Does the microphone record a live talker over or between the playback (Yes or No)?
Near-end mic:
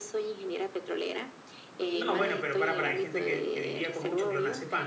Yes